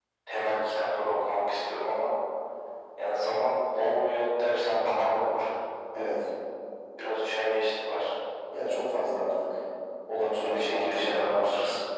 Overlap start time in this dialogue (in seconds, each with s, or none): 10.4 s